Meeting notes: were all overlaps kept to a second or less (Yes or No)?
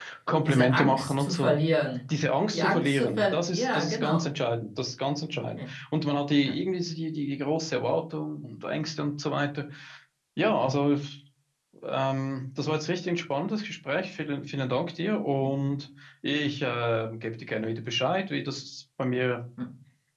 No